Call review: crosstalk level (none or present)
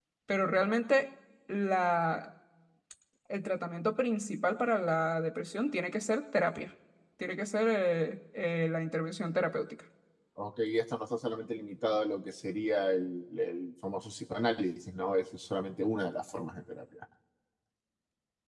none